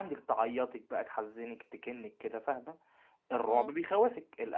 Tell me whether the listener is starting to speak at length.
No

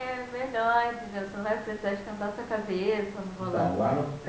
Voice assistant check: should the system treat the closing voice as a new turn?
Yes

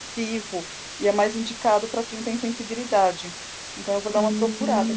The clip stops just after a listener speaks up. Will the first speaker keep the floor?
No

